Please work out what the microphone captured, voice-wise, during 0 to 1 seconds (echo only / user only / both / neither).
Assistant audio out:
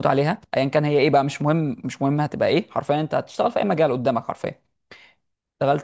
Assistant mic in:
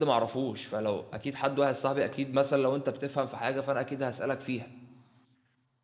user only